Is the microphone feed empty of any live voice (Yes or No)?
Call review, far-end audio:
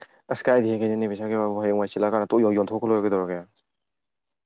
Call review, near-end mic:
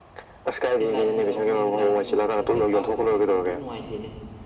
No